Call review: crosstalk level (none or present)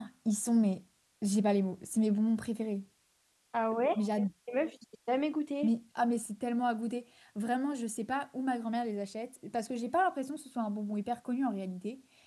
none